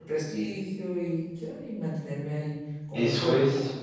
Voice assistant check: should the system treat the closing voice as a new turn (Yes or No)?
Yes